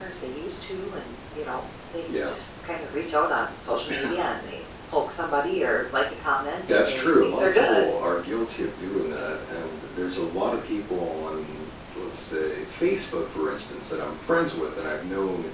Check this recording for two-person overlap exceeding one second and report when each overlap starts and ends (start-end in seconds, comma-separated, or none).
6.7-7.9